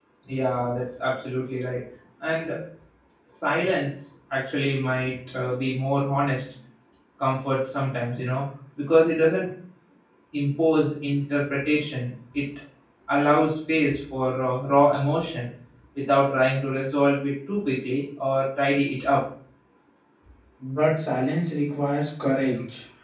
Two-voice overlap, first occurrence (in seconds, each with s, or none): none